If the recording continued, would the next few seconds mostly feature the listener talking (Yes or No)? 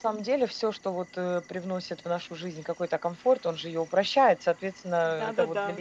Yes